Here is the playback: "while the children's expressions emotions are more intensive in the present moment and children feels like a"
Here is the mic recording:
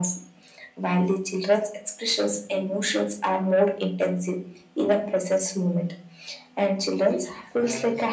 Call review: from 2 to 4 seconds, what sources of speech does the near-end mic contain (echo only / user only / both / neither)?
echo only